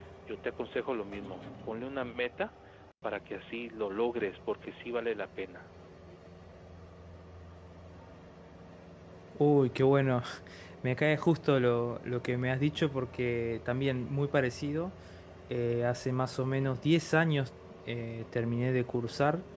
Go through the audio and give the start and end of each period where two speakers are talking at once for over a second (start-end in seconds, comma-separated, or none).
none